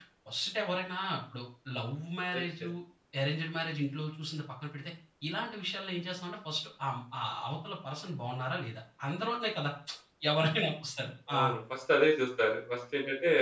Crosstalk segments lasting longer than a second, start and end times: none

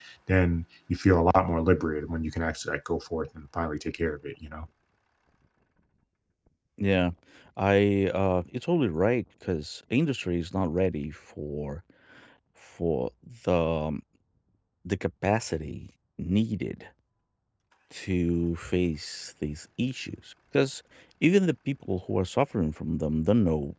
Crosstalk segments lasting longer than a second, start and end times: none

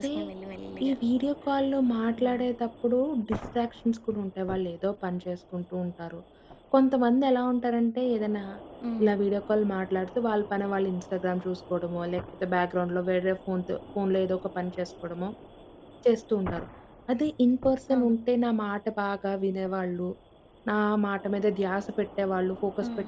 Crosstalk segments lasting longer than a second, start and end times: none

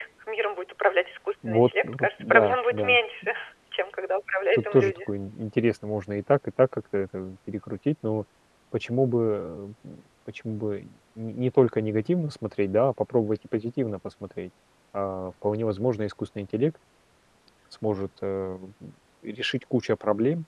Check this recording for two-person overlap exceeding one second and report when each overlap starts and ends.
1.4-3.0

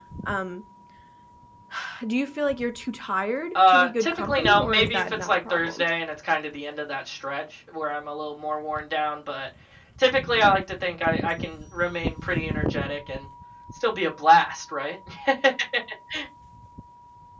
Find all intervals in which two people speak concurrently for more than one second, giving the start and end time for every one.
3.5-5.9

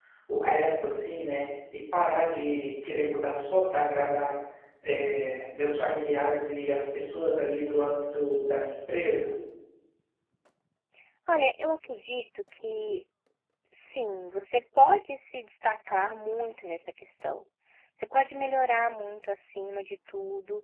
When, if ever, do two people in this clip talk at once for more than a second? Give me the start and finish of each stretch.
none

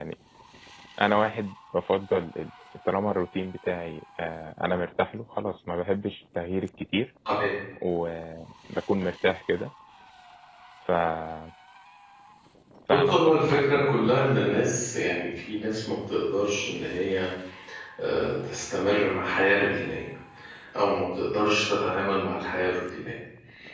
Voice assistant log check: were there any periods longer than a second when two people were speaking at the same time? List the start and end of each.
12.9-14.1

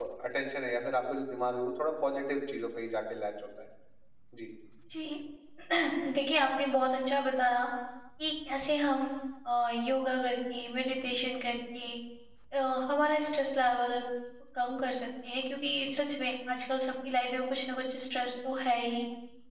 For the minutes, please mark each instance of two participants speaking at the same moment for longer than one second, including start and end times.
none

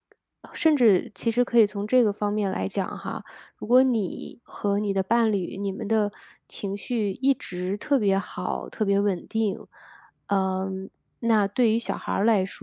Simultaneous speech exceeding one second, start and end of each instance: none

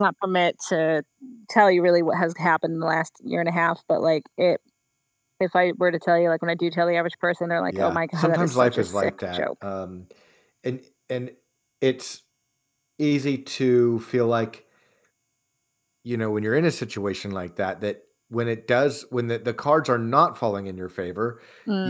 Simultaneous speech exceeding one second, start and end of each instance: 7.7-9.4

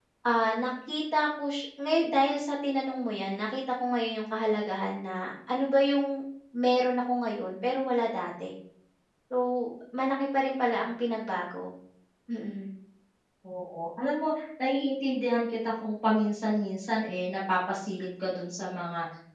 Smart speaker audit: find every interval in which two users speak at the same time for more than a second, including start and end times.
none

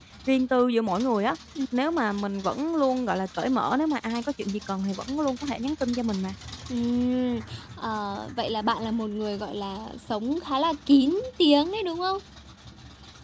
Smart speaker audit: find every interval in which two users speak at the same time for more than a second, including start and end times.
none

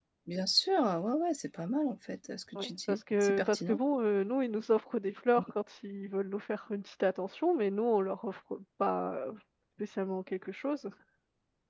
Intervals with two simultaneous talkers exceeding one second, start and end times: 2.5-3.8

